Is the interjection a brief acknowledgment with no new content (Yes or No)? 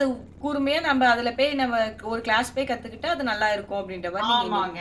No